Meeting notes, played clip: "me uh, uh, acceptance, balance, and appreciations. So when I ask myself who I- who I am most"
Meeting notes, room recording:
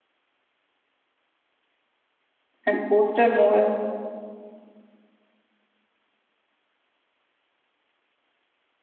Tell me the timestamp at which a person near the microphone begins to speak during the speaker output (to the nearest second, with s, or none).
3 s